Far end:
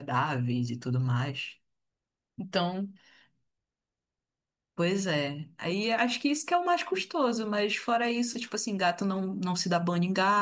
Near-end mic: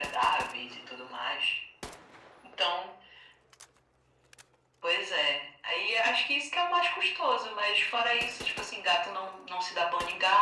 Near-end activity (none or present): none